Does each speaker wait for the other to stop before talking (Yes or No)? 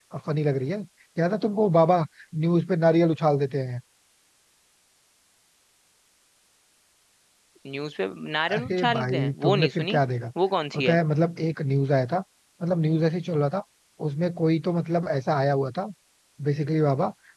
No